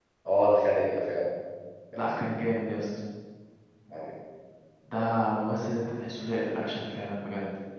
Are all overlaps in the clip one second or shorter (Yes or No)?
Yes